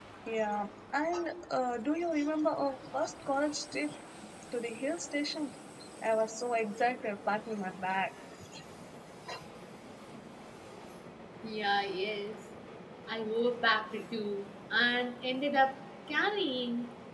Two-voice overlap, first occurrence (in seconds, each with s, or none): none